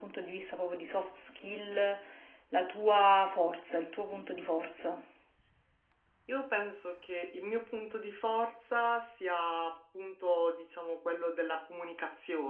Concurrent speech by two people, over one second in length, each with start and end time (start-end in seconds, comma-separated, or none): none